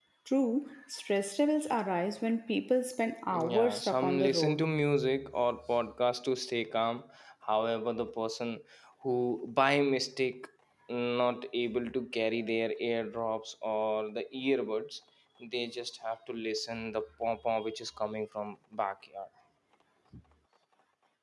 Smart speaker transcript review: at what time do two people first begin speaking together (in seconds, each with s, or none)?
3.3 s